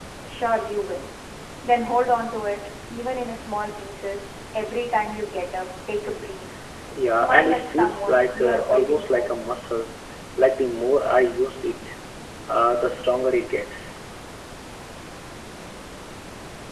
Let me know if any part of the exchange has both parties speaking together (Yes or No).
Yes